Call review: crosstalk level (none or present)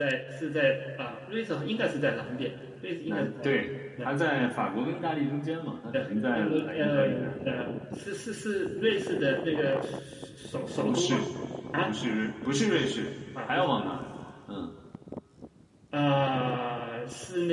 present